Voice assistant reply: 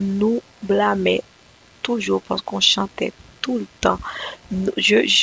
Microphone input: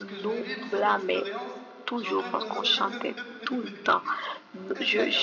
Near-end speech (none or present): present